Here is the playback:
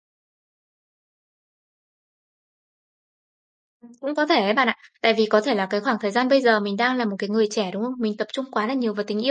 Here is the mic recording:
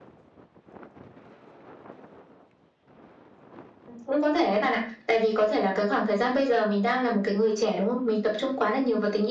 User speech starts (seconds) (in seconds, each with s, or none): none